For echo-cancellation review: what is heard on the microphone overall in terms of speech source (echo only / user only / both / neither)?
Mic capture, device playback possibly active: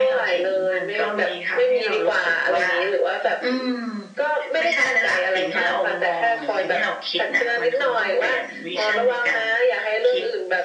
echo only